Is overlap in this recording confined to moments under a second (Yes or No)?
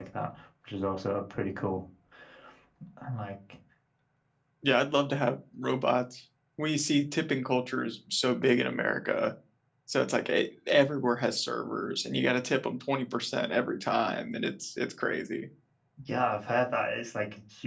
Yes